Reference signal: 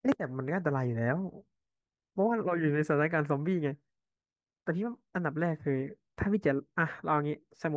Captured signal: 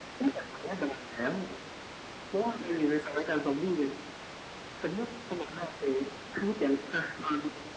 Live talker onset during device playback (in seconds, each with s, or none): none